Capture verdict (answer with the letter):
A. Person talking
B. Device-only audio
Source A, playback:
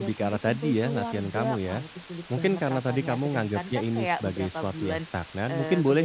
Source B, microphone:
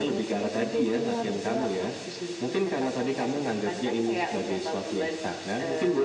B